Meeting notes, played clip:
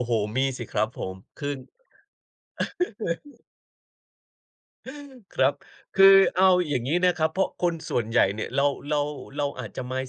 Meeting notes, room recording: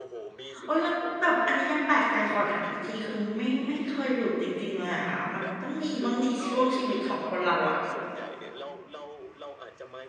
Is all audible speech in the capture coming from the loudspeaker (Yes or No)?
No